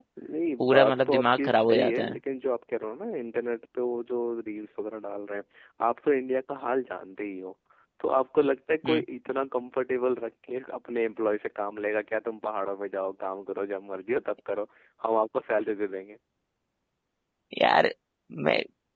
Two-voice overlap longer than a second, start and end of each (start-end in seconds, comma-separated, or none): 0.6-2.2